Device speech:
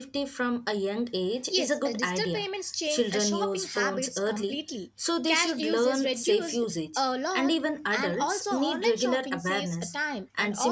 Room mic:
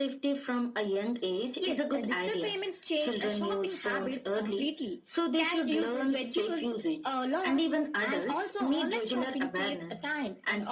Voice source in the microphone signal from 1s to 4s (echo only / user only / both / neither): echo only